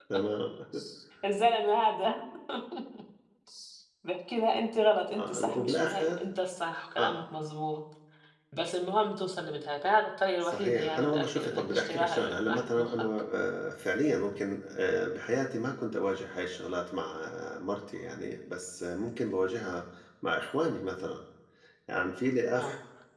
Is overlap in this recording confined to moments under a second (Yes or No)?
No